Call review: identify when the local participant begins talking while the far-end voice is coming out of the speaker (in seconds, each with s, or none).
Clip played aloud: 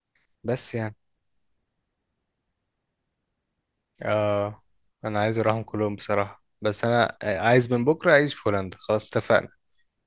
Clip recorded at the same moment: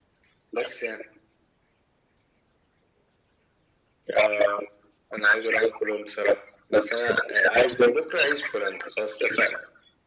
none